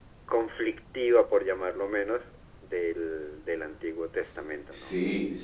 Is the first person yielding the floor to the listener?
Yes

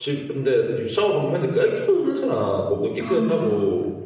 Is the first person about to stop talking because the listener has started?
No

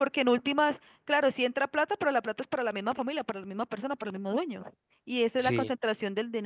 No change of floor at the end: Yes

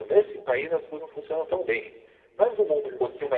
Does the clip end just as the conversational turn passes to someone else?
No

